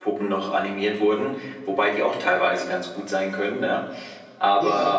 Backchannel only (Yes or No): Yes